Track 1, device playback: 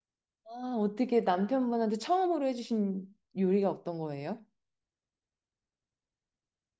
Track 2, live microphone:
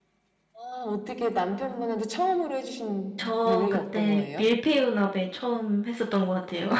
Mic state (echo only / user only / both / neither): both